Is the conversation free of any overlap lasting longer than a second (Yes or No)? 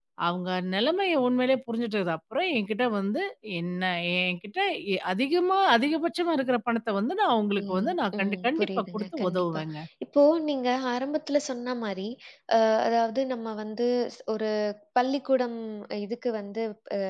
No